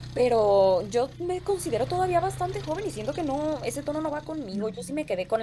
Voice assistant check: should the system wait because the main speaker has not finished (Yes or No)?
Yes